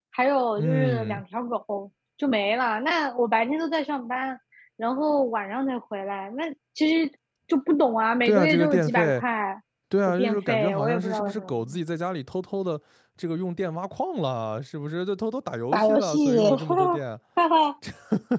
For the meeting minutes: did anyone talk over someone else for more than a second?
Yes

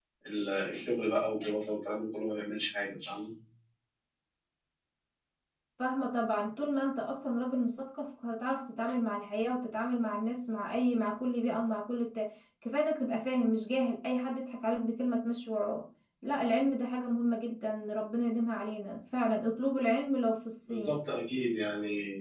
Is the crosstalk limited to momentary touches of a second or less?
Yes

